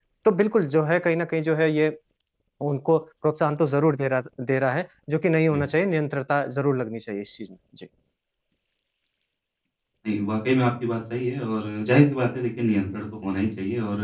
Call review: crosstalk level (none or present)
none